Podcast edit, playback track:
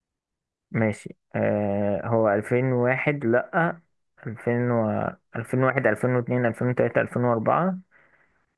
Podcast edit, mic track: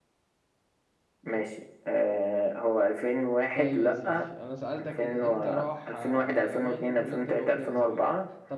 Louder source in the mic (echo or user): echo